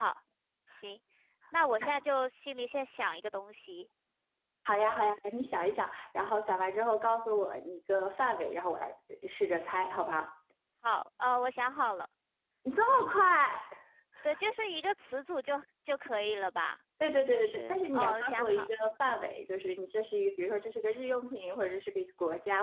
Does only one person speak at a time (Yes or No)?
No